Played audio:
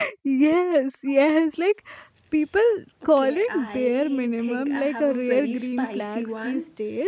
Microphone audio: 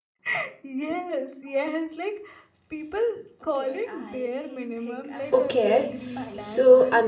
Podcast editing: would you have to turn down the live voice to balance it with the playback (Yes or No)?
Yes